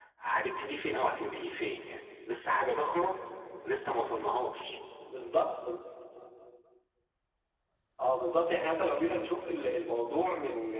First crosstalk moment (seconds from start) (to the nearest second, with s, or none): none